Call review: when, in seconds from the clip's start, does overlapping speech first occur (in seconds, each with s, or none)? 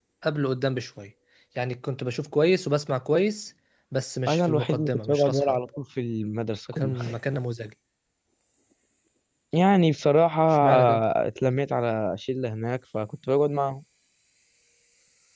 4.3 s